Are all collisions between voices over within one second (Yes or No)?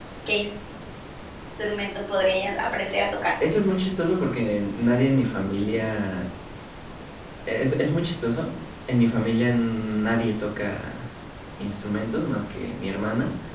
Yes